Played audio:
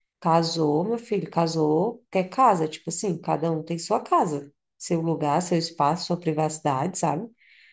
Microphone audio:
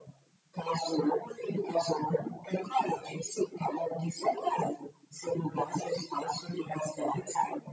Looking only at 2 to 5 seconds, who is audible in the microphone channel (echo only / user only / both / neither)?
echo only